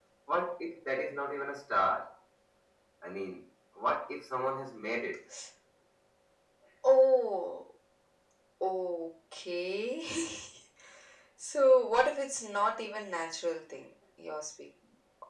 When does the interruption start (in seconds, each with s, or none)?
none